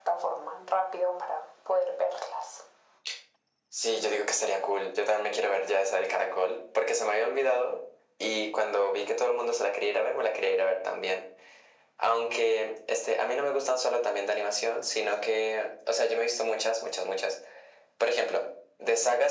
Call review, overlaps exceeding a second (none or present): none